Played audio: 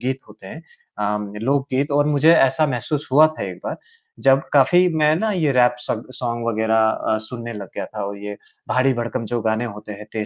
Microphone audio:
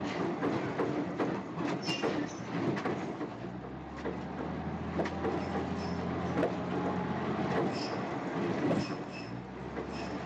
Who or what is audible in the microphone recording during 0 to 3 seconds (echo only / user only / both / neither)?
neither